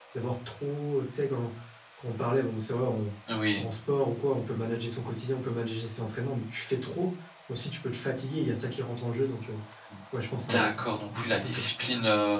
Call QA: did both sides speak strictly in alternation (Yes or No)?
No